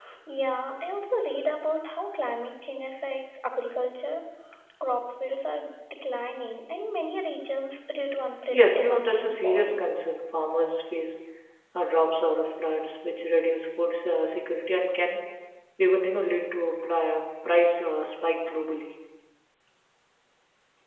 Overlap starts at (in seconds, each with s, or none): 8.5 s